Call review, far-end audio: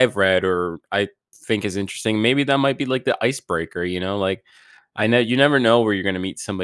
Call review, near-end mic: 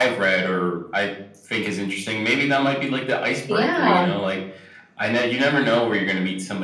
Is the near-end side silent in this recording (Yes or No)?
No